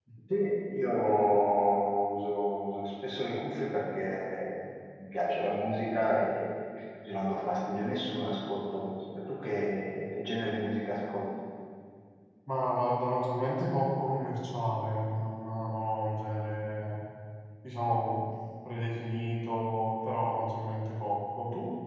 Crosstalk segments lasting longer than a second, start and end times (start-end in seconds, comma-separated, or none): none